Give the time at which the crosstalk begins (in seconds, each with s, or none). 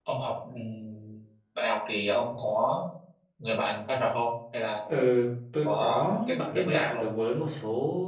5.7 s